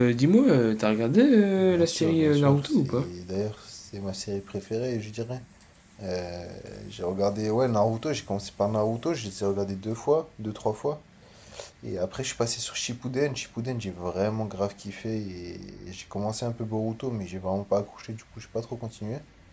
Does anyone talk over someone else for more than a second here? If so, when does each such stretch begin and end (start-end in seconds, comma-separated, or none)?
1.6-3.1